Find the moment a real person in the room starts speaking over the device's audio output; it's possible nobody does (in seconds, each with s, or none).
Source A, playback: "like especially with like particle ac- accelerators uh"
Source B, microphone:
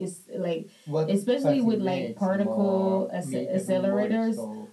0.8 s